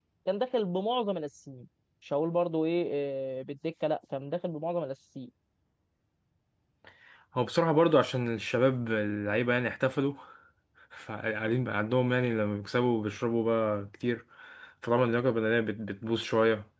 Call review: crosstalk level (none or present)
none